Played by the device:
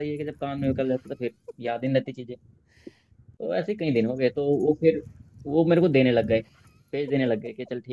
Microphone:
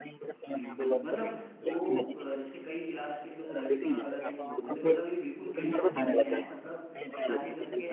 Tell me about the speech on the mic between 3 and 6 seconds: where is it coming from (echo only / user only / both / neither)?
both